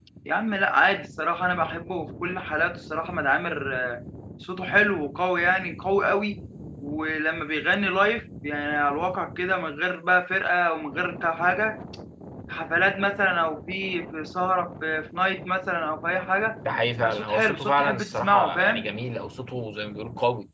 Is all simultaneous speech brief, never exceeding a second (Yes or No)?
No